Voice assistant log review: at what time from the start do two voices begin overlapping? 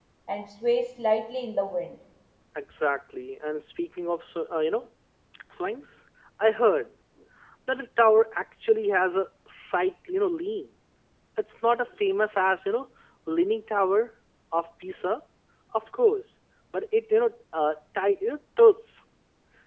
none

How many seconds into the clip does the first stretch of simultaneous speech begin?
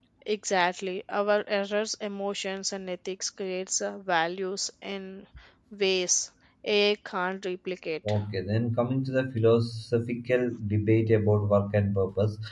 none

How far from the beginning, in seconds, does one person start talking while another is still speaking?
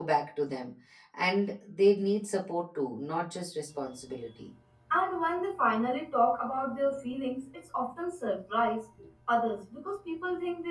none

